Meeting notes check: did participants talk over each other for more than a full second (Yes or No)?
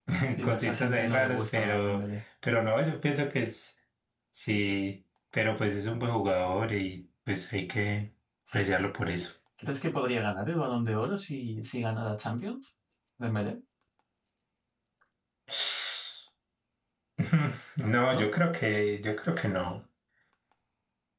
Yes